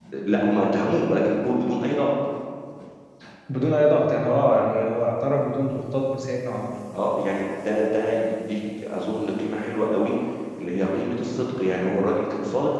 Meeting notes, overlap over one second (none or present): none